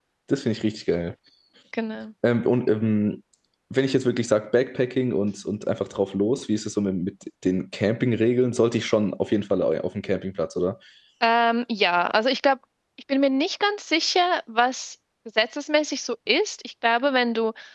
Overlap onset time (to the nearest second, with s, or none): none